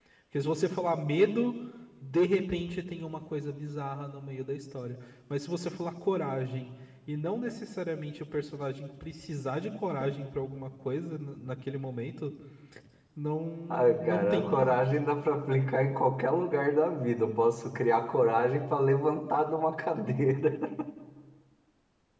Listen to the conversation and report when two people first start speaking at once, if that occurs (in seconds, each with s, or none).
13.7 s